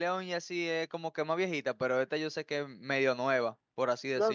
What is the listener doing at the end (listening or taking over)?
taking over